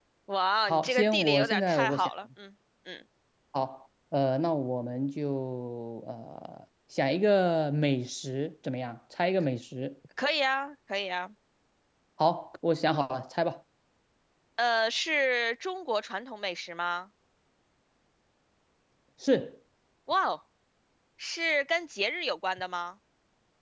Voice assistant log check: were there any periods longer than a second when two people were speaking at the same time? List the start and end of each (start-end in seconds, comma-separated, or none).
0.7-2.1